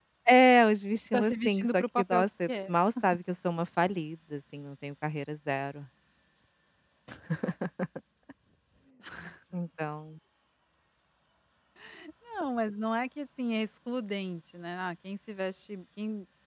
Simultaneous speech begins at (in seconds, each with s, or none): 1.1 s